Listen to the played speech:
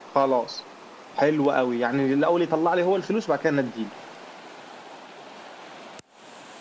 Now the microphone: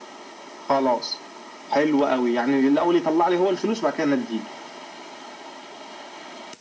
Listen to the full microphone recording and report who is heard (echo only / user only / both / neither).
echo only